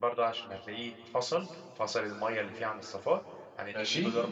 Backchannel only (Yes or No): Yes